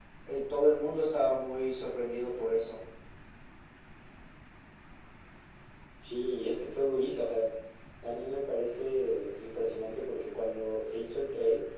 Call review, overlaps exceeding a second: none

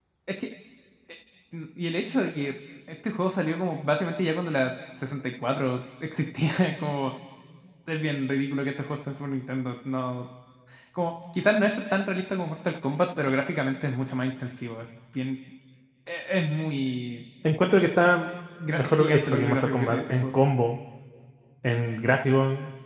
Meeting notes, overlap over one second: present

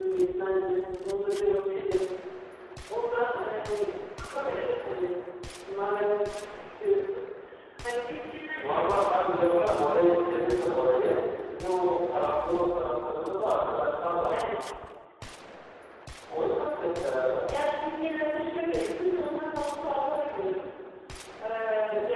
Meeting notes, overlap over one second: none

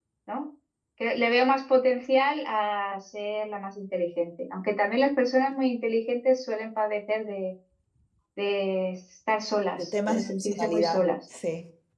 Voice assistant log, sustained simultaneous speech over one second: present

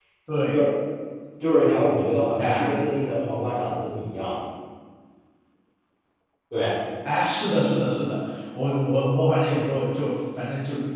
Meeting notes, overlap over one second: none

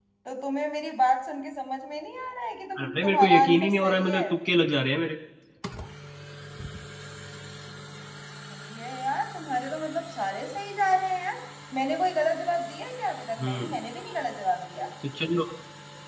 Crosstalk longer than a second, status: present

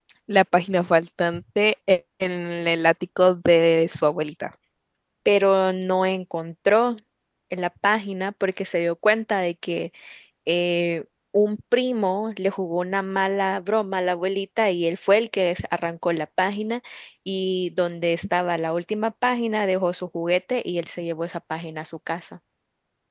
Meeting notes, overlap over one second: none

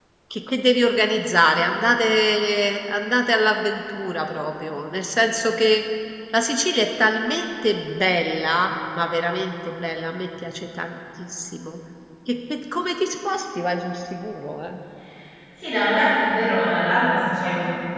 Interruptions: none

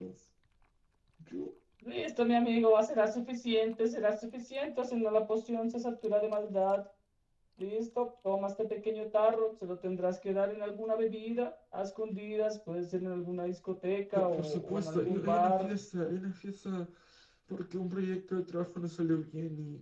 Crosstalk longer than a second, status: present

